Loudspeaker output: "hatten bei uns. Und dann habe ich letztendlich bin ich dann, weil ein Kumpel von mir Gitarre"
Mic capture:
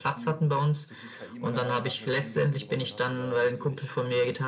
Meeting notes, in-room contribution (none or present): present